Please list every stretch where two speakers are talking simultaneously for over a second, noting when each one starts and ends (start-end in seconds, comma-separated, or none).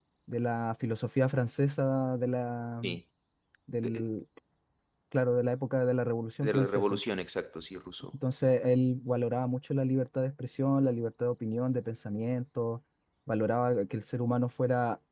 none